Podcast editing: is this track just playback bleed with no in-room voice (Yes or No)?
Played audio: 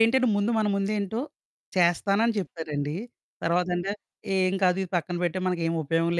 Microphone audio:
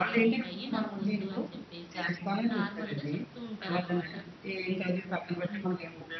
No